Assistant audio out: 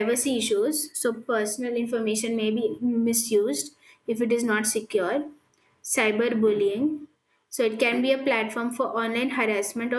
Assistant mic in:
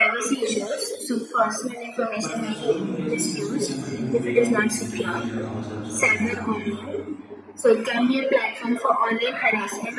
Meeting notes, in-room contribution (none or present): present